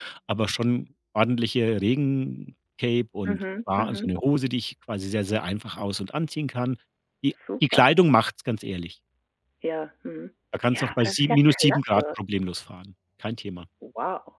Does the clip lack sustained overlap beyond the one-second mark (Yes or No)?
No